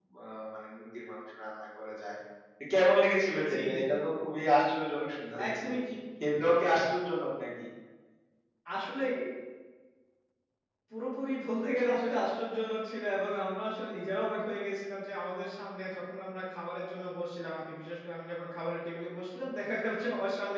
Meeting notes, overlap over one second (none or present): none